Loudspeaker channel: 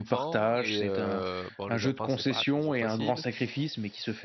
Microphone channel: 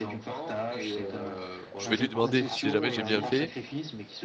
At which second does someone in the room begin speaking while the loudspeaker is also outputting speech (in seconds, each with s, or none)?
1.8 s